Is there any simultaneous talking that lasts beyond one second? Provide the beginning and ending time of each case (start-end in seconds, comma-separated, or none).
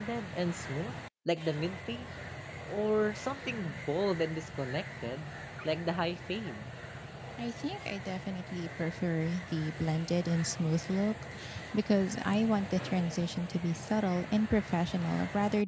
none